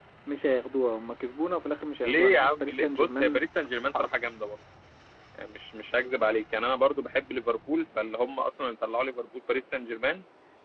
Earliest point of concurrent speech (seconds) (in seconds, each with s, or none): 2.0 s